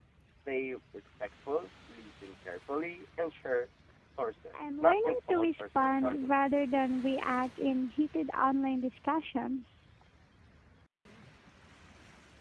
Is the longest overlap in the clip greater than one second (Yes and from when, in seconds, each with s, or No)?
Yes, from 4.8 s